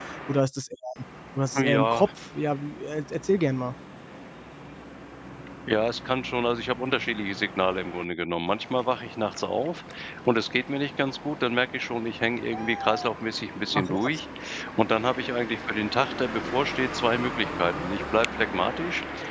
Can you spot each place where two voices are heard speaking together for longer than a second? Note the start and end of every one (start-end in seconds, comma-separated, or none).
none